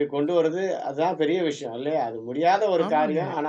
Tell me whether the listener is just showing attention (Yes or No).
Yes